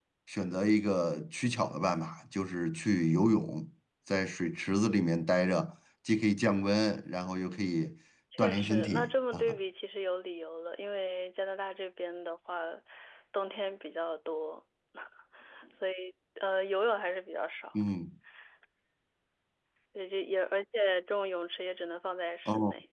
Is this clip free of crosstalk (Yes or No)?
No